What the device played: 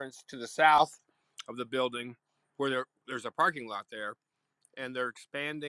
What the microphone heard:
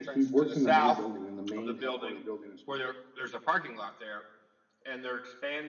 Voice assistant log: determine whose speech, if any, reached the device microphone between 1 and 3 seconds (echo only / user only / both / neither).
both